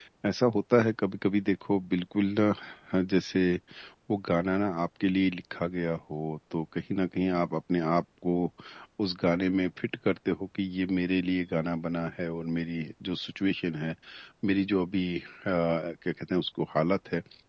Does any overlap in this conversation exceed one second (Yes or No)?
No